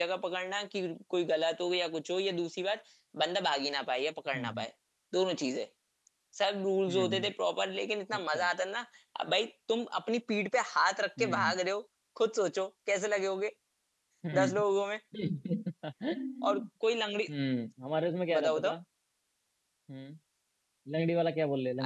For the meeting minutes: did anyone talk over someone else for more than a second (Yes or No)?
No